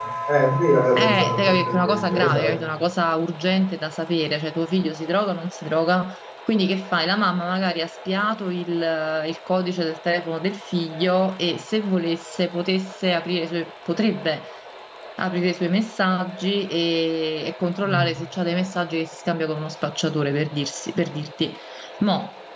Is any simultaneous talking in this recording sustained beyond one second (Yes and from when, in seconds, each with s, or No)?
Yes, from 1.0 s